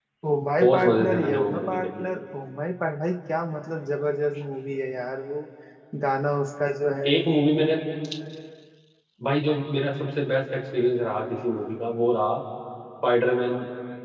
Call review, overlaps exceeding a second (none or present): present